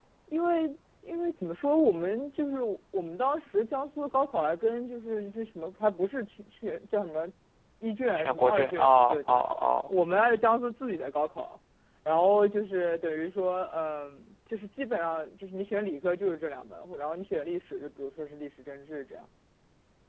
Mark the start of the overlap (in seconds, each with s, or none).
8.2 s